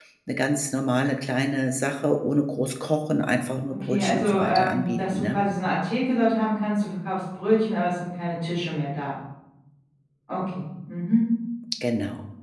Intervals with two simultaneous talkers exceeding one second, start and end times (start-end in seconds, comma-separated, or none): 3.7-5.4